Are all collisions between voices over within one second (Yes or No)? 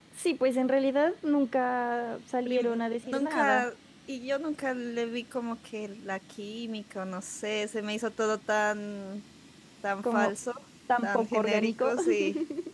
No